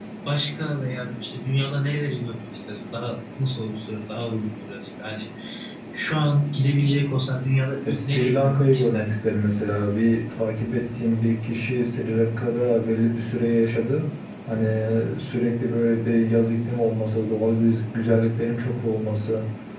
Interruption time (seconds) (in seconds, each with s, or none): 7.8 s